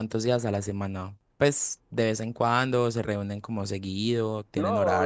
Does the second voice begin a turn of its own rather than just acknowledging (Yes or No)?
Yes